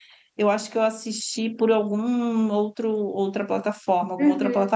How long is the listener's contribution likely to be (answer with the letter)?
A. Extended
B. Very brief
A